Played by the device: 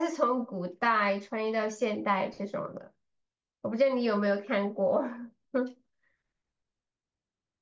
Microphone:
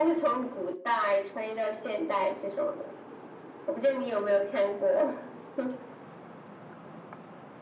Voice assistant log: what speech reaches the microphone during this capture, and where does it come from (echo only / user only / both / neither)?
echo only